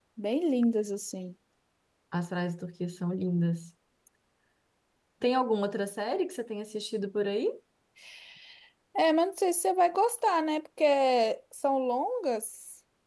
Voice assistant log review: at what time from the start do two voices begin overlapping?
none

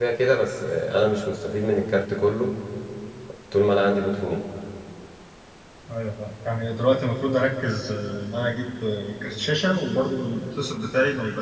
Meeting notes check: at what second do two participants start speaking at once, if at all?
none

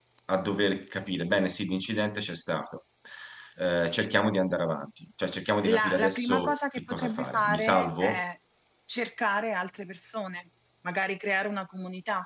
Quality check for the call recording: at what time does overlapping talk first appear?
6 s

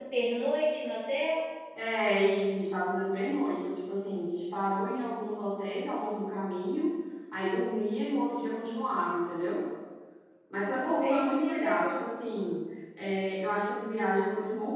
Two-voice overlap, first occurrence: 11 s

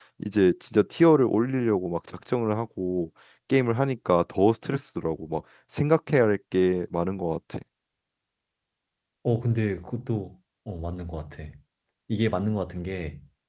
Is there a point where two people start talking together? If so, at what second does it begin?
none

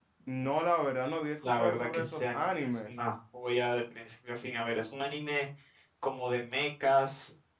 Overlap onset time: 1 s

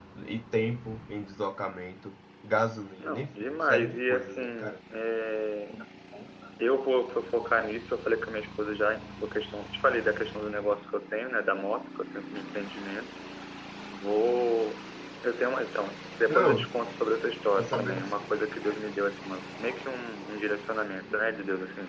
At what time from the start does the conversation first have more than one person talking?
3 s

